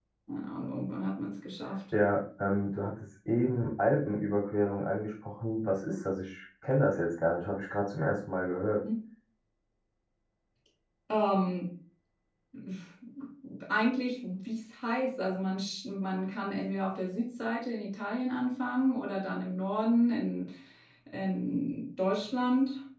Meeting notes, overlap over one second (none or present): none